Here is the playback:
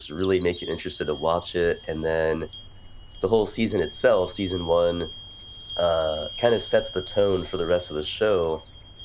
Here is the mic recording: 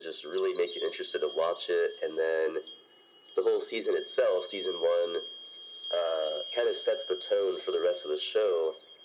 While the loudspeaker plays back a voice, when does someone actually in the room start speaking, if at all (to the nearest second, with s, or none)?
none